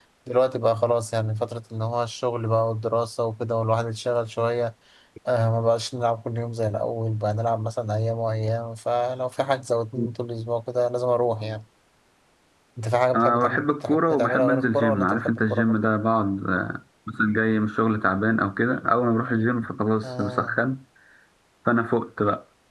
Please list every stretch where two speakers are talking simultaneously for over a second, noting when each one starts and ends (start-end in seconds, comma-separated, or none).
13.1-15.8